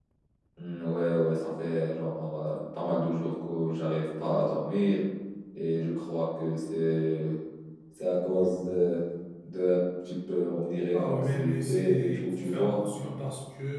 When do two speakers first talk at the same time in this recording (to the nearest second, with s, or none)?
11 s